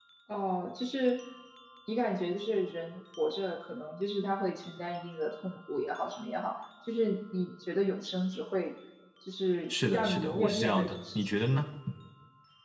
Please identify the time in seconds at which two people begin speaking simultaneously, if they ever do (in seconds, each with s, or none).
9.7 s